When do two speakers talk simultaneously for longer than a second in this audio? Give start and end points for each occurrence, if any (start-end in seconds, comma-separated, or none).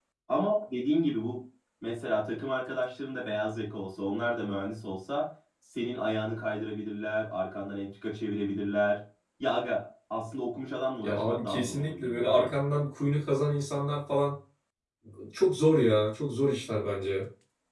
11.0-12.5